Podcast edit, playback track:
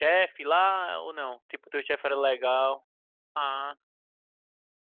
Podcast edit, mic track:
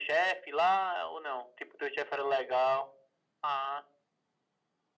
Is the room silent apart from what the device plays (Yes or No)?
Yes